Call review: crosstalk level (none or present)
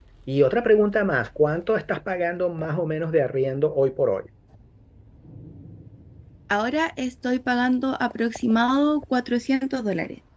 none